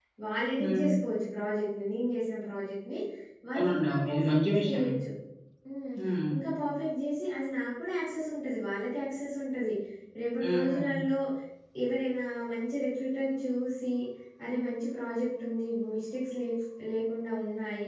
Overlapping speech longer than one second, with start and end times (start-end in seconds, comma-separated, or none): 3.5-4.9